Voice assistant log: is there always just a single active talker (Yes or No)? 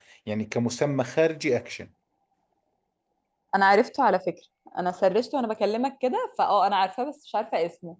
Yes